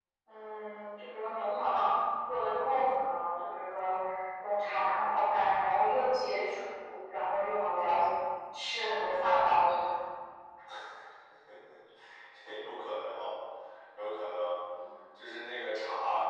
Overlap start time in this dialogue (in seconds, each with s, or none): none